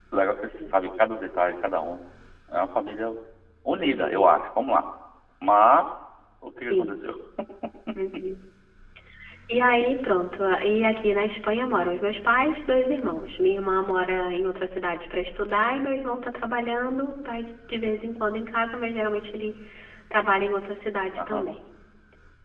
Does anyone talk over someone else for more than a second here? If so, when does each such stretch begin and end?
none

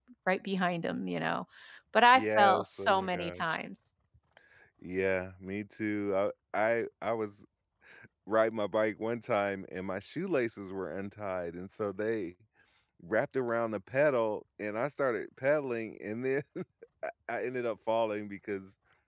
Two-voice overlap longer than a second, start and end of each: 2.1-3.4

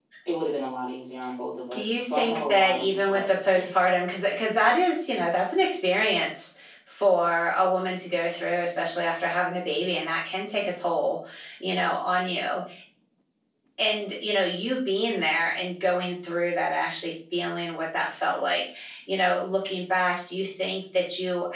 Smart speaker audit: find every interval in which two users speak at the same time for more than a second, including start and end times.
1.7-3.3

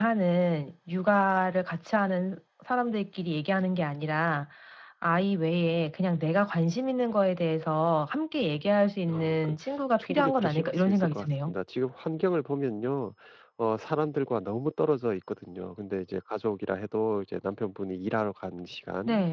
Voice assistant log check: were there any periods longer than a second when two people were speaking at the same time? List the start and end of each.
9.1-11.6

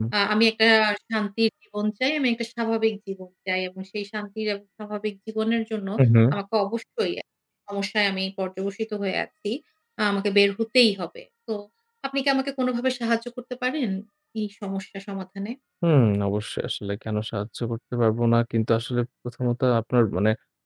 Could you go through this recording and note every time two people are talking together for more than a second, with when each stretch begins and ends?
none

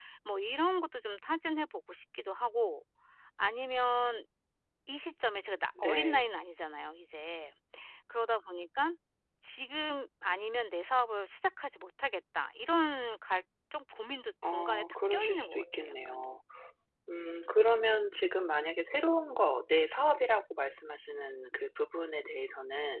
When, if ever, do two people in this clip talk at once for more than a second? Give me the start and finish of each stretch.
14.4-15.9

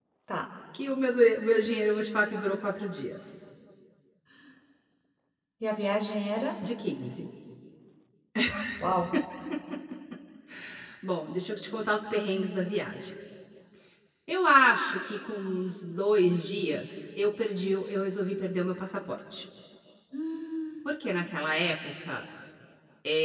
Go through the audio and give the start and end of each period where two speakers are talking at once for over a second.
none

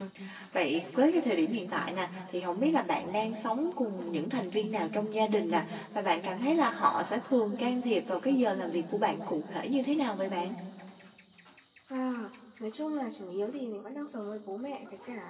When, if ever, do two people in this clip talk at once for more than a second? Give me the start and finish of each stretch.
none

